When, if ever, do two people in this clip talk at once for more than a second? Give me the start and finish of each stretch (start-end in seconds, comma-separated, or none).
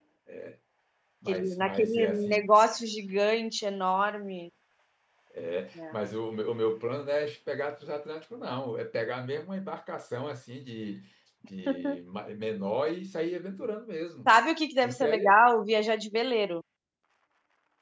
1.3-2.5